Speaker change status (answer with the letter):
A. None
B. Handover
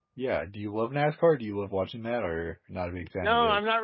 B